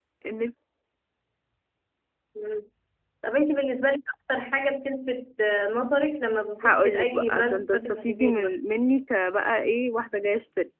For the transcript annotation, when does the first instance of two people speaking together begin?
6.6 s

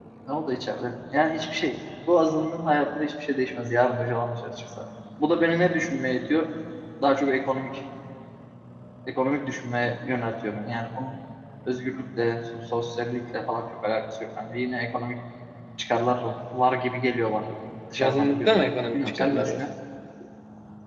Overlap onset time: 18.0 s

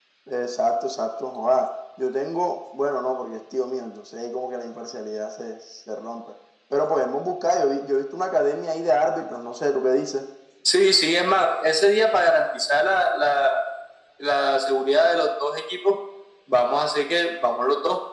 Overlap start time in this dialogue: none

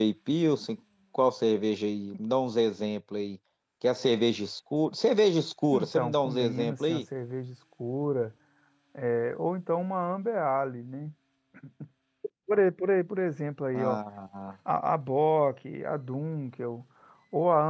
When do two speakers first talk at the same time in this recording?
5.7 s

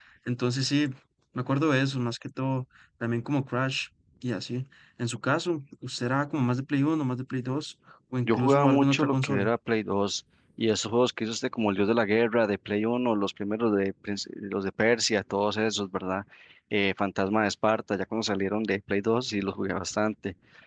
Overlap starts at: 8.2 s

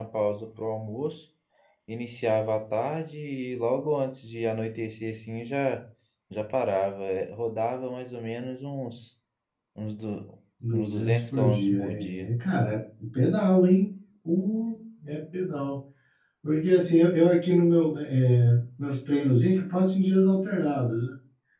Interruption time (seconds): 10.6 s

